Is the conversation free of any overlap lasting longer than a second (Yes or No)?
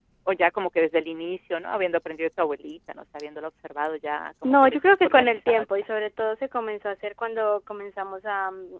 No